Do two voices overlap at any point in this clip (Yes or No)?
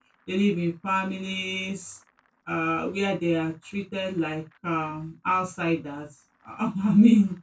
No